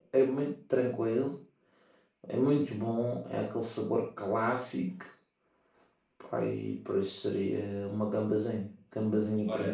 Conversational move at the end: taking over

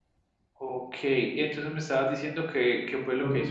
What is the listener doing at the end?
taking over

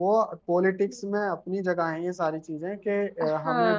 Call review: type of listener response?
taking over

